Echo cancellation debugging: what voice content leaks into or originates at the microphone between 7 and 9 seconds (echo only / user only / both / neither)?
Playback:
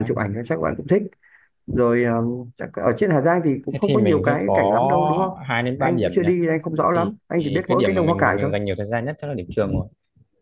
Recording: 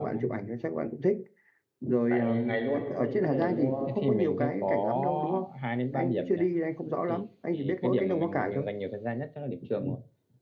echo only